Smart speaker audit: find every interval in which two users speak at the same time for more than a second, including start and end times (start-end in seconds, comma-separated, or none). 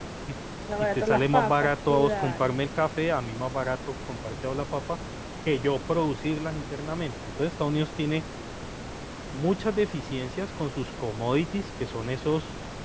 0.8-2.5